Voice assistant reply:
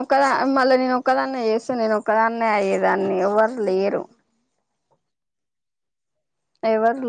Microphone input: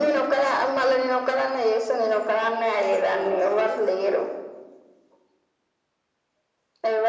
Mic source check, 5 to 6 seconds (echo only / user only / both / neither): neither